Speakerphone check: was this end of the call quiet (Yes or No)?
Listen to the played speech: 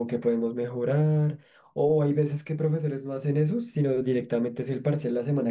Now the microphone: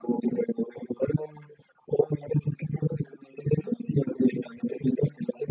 Yes